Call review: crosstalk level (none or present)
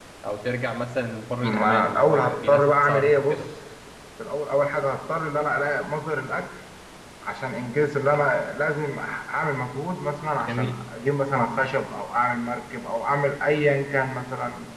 present